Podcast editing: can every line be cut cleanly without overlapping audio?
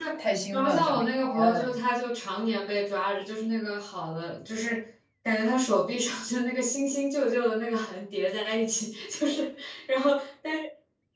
No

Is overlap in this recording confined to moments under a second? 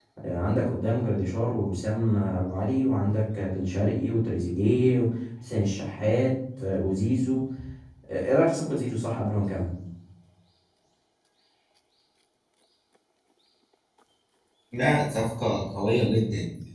Yes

